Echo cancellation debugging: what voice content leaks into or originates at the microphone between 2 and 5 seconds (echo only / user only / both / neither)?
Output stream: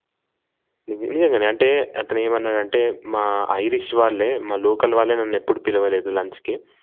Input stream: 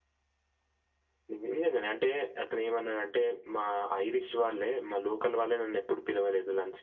echo only